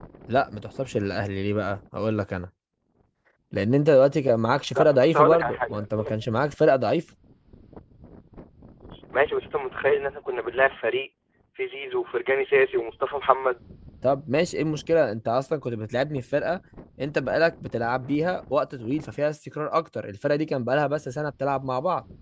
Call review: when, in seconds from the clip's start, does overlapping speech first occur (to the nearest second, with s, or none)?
5 s